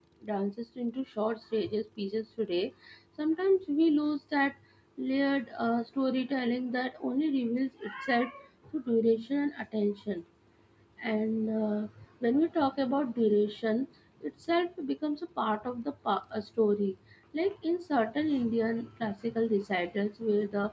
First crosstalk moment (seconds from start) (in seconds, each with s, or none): none